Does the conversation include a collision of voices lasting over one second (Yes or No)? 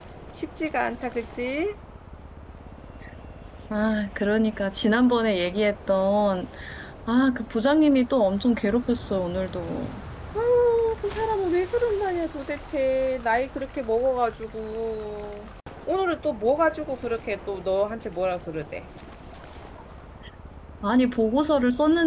No